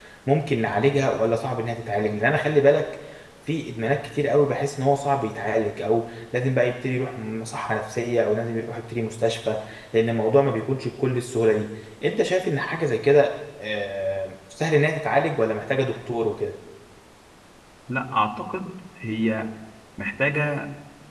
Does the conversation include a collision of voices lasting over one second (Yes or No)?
No